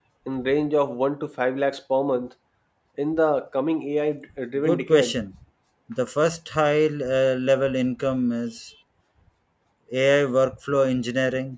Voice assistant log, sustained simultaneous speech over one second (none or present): none